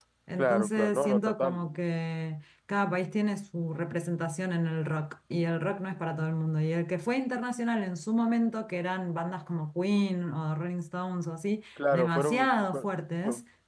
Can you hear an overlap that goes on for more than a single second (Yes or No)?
Yes